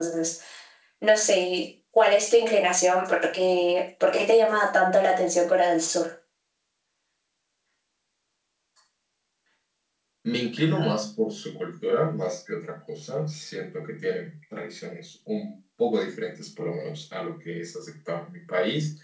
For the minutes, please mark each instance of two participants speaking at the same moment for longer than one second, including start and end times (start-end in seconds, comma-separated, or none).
none